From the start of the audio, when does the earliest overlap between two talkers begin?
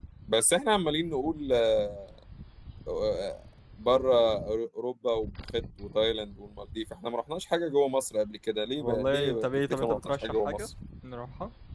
8.8 s

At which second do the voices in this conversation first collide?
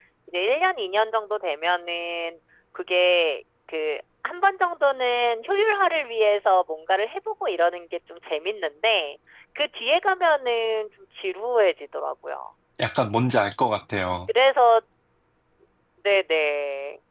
none

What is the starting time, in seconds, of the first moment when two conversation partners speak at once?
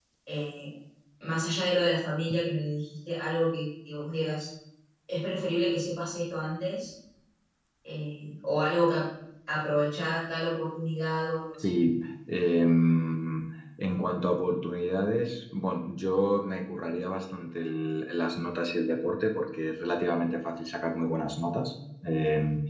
none

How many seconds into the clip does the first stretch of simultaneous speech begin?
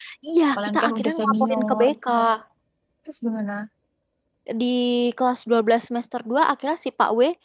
0.6 s

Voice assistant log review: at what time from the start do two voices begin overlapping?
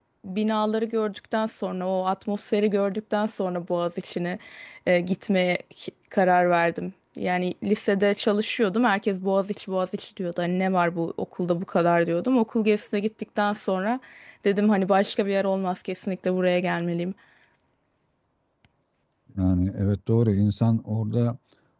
none

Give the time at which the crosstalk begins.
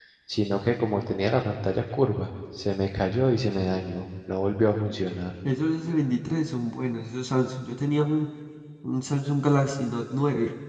none

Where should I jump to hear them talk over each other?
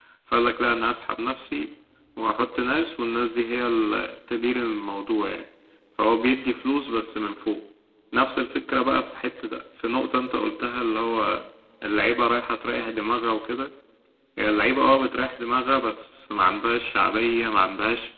none

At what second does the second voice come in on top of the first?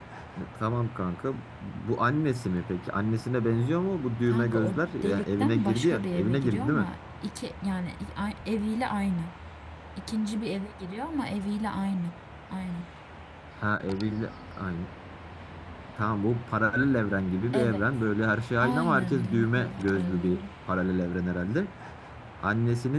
4.3 s

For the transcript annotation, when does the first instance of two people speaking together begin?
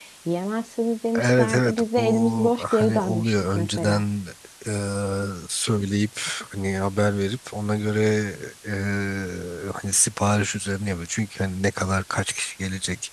1.2 s

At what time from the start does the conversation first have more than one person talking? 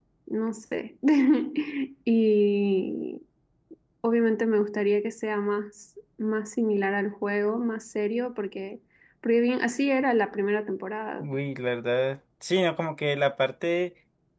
none

